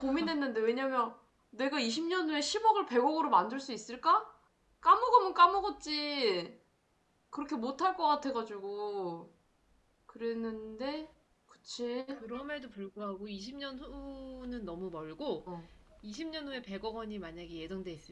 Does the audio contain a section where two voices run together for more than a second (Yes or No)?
No